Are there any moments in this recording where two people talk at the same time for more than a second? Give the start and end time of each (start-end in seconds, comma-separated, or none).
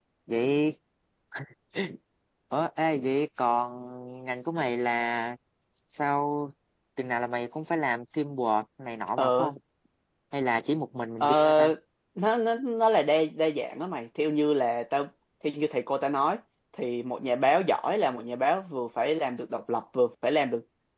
none